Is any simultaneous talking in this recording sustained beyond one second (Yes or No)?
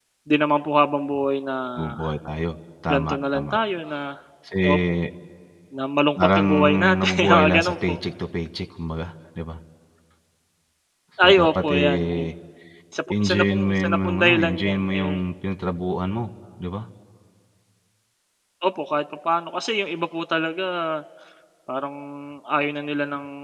Yes